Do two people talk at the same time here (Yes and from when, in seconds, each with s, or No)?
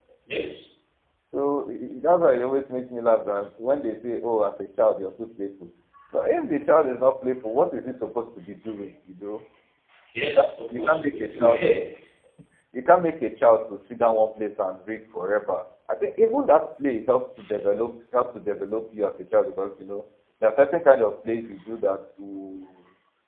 Yes, from 10.2 s